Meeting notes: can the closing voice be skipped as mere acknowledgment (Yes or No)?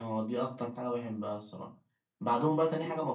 Yes